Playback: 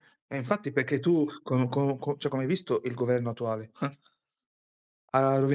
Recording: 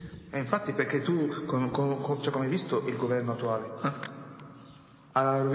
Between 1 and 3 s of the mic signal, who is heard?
echo only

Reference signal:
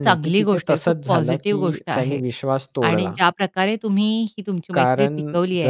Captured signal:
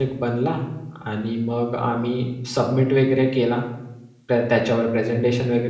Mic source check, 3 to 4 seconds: user only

